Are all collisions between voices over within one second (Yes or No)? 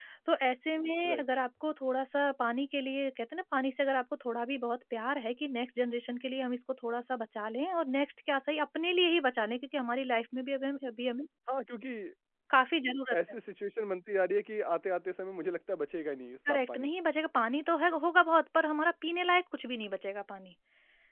Yes